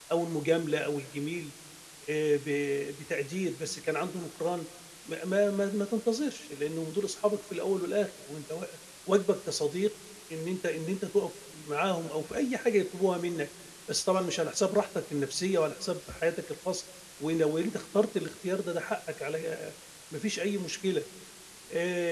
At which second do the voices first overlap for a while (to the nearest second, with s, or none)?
none